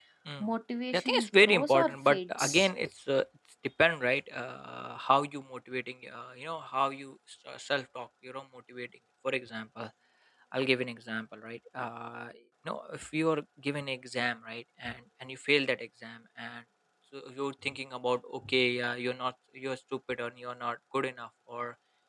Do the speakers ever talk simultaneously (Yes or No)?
Yes